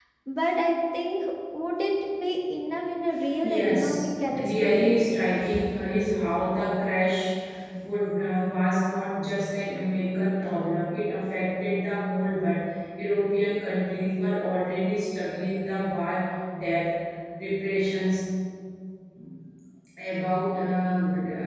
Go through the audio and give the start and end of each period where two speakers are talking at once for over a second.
3.4-5.0

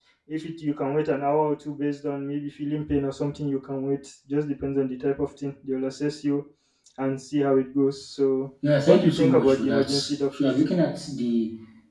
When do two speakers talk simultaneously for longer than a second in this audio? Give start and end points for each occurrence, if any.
8.9-10.6

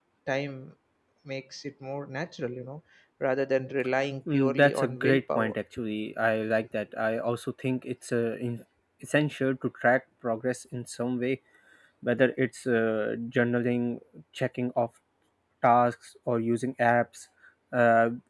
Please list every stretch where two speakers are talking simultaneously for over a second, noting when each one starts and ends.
4.3-5.5

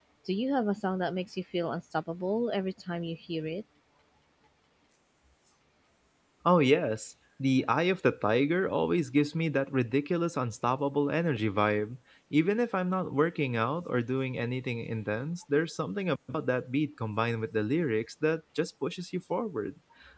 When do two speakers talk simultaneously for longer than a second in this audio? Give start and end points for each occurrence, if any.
none

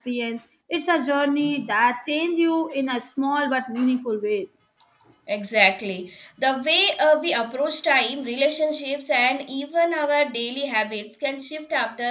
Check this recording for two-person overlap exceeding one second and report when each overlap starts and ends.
none

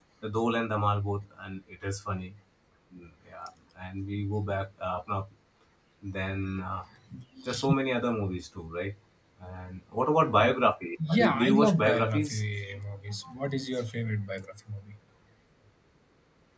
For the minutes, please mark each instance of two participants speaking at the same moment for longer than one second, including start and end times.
11.2-12.4

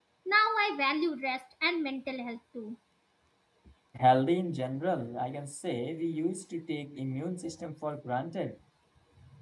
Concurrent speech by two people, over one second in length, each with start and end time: none

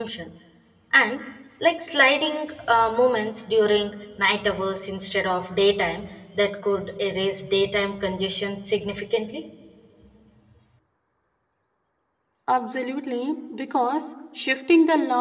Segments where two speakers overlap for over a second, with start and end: none

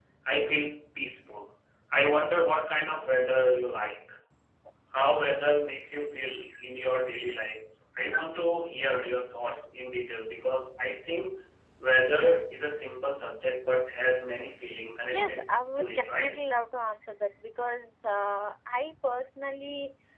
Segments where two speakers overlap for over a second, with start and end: none

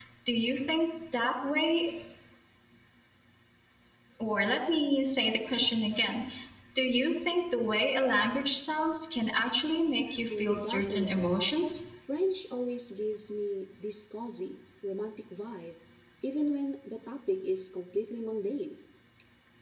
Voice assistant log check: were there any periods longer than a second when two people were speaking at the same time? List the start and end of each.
10.2-11.4

